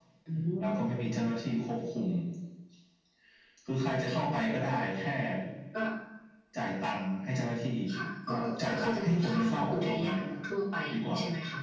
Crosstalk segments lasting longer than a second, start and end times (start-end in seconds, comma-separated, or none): 8.3-10.2